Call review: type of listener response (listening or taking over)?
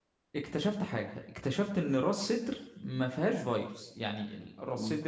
taking over